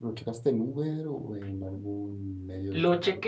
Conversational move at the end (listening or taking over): taking over